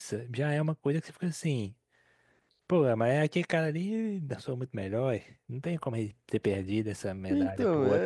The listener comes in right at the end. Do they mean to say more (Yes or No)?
Yes